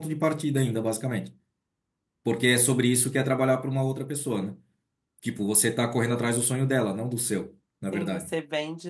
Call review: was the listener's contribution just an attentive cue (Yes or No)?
No